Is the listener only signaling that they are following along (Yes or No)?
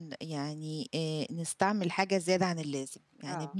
Yes